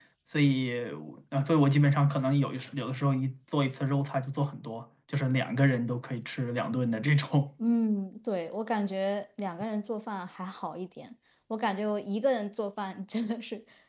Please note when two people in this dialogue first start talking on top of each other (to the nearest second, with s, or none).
none